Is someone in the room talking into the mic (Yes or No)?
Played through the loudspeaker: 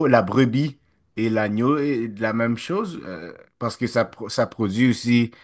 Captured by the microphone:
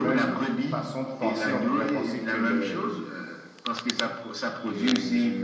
Yes